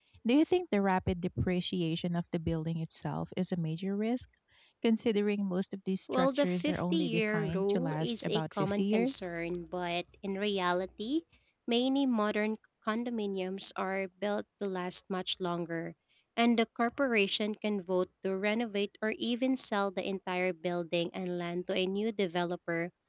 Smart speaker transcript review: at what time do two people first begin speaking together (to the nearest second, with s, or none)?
6 s